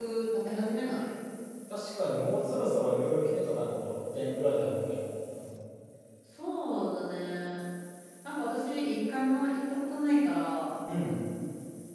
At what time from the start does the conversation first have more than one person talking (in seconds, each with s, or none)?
none